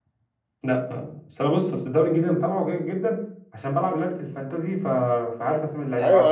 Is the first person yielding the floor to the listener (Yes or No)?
Yes